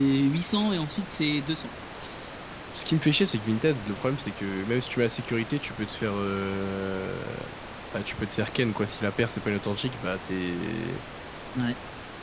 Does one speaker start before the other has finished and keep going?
No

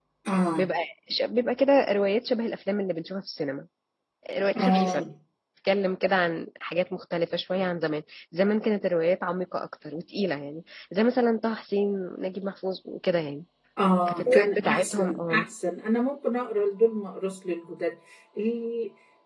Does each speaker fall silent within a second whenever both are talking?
No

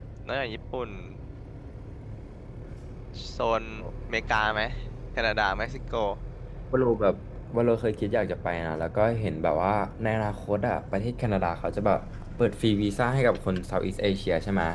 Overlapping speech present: No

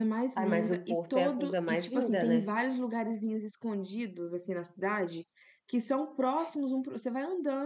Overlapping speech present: Yes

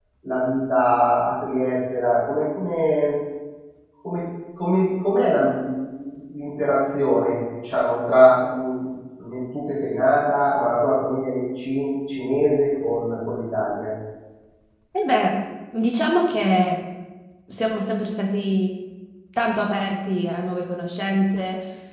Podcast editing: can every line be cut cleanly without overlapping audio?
Yes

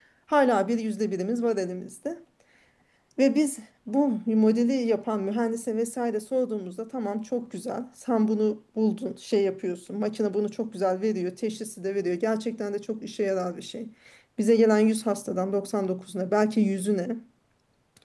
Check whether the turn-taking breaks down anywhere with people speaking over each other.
No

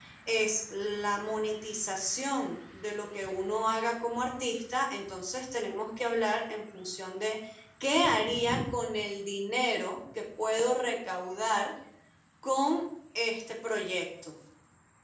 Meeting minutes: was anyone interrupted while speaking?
No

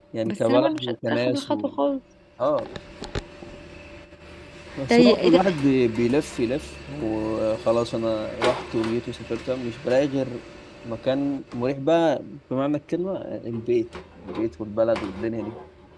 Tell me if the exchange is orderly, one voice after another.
No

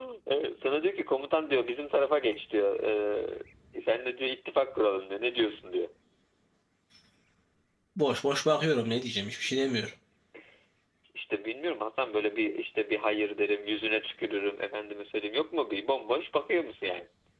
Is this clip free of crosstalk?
Yes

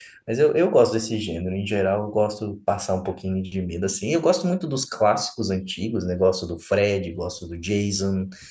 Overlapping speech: No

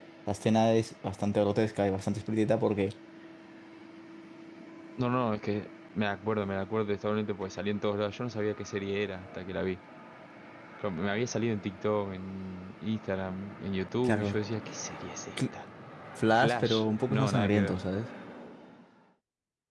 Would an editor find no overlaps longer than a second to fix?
No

